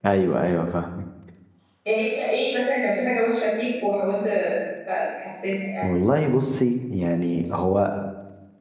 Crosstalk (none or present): none